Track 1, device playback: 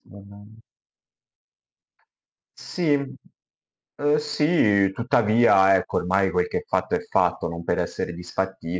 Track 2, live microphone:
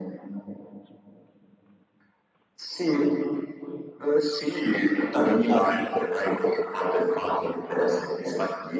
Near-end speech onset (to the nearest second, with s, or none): none